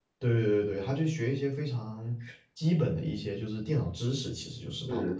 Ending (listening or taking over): taking over